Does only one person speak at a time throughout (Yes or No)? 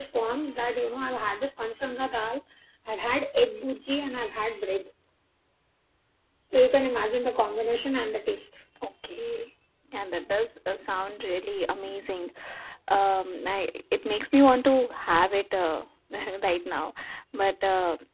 Yes